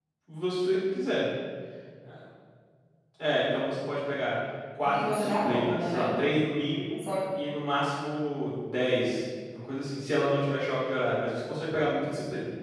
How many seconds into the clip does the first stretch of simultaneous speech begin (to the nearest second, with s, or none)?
5 s